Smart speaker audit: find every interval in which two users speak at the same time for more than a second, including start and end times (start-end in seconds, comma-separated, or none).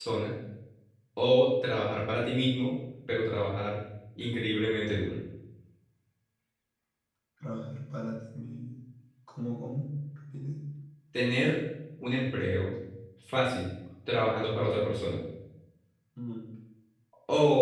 none